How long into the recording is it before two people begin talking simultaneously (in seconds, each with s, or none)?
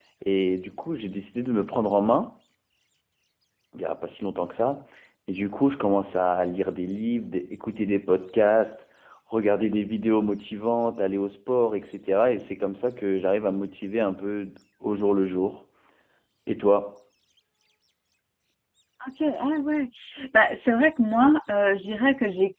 none